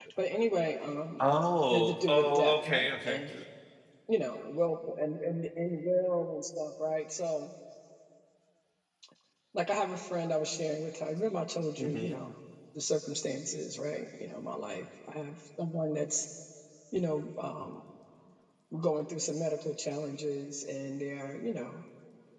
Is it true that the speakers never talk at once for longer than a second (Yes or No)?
No